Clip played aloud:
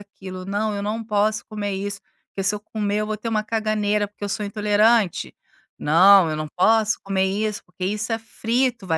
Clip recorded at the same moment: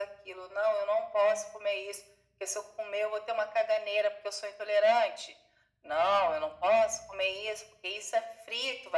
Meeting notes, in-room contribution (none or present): none